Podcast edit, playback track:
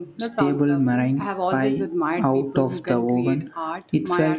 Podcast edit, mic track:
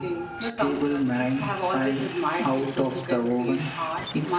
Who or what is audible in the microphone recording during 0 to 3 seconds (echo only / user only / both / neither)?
echo only